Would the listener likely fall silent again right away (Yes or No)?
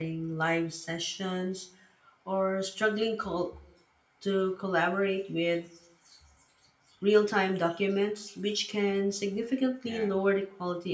Yes